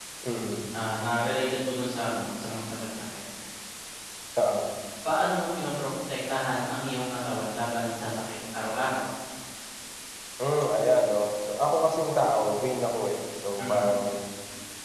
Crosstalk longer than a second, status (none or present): none